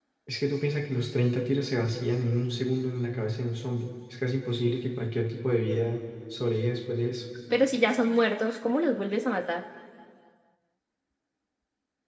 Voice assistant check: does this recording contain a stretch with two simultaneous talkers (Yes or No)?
No